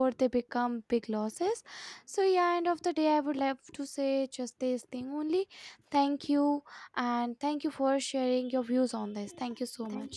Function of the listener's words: taking over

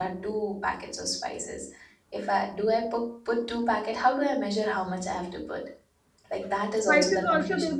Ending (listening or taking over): taking over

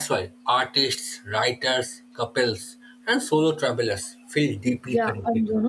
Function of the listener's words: taking over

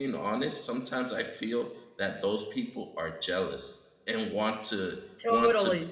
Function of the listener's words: listening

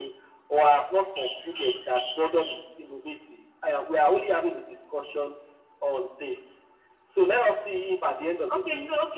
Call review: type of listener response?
taking over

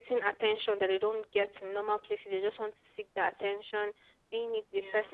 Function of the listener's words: listening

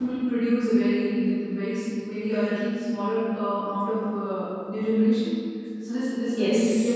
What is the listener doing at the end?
listening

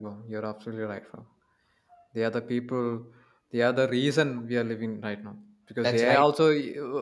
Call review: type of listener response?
listening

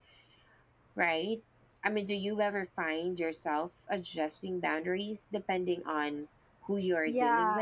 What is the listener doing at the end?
taking over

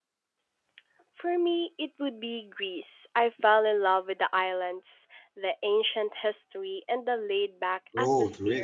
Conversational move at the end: taking over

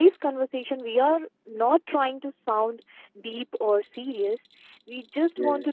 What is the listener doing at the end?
listening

